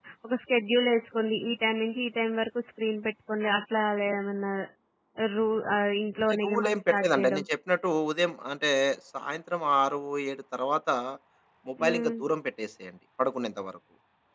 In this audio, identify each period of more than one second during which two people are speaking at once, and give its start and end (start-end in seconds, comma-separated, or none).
6.2-7.4